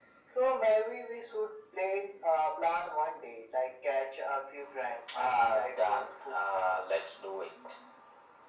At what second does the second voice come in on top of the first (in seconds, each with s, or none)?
5.1 s